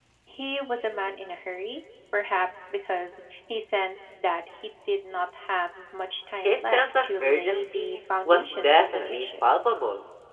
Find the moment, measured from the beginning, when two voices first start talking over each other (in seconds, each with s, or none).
6.4 s